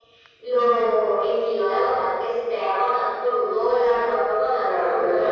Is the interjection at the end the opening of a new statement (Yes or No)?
Yes